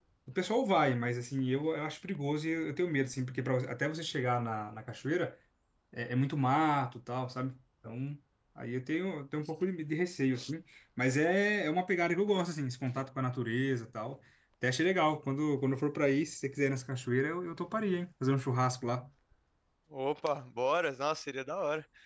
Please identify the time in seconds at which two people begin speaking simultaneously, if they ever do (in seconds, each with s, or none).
none